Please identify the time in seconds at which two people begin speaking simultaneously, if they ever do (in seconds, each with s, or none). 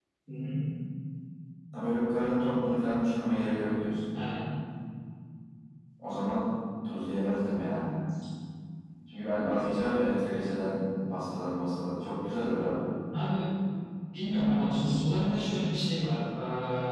none